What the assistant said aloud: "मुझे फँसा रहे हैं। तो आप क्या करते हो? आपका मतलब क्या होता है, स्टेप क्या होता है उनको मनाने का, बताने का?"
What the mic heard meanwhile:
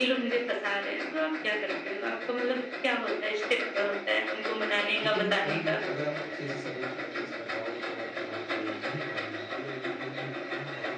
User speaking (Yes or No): Yes